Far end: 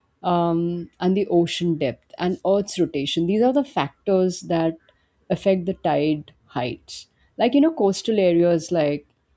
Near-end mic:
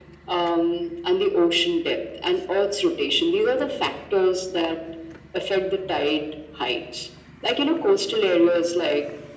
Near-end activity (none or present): none